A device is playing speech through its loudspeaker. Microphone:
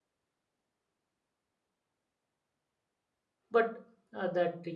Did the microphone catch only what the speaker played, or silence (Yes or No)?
No